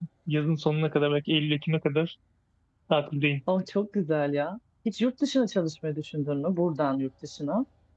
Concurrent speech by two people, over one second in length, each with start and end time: none

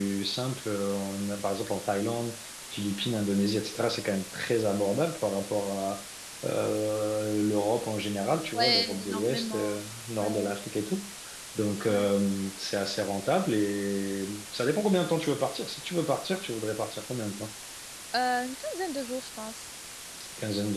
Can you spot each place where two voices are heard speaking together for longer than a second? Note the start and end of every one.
8.5-9.8

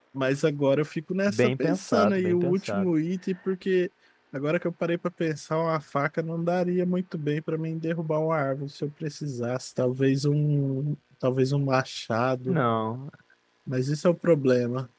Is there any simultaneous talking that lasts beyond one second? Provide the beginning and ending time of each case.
1.3-2.8

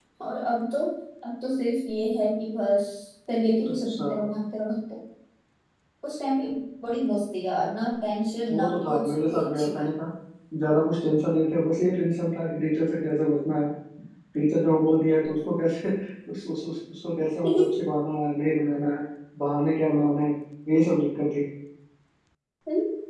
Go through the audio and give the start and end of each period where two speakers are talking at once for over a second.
8.5-9.9

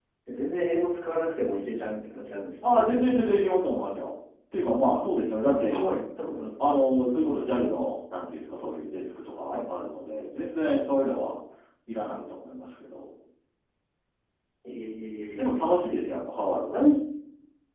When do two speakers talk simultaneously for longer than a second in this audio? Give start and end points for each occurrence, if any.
none

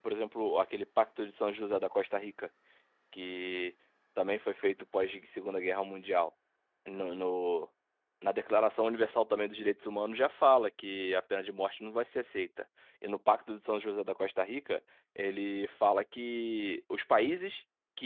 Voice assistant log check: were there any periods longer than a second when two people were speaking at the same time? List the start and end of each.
none

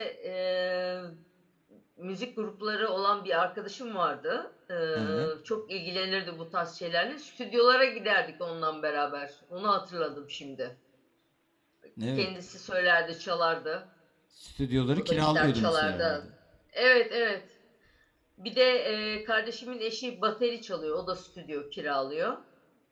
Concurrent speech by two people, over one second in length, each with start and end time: 14.9-16.2

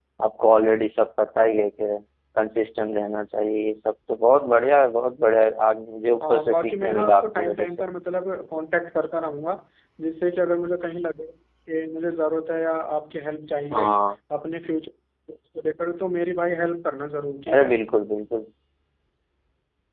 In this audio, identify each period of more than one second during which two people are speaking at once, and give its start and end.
6.3-7.8

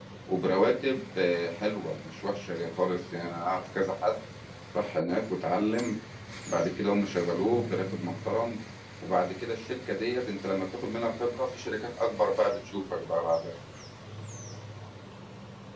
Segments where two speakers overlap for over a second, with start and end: none

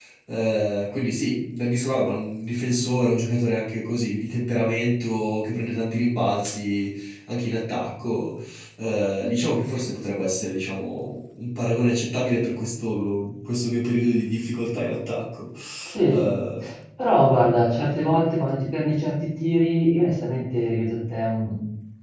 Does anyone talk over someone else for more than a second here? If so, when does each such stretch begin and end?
none

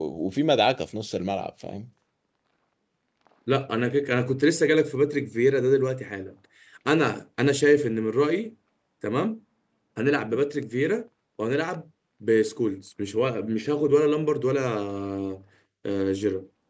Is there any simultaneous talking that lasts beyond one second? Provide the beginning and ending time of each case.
none

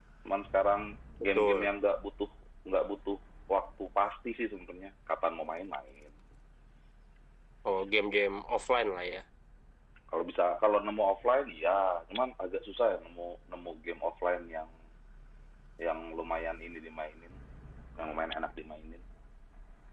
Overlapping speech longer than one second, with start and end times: none

